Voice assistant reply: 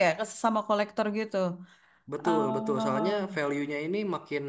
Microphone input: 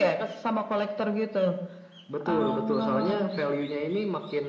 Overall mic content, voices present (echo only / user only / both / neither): echo only